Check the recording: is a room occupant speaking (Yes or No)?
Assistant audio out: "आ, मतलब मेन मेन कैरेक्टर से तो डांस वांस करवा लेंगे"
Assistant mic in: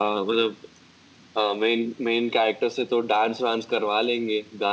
No